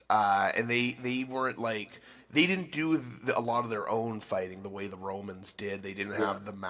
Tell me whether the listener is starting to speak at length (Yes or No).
No